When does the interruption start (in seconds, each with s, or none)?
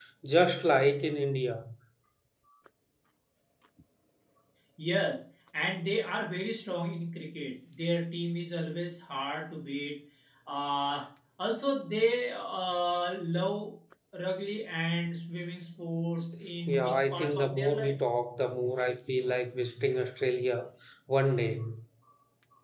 16.7 s